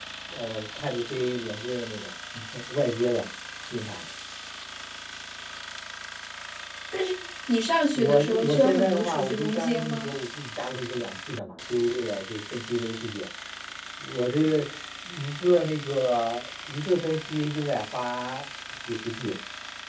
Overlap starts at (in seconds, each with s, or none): 8.0 s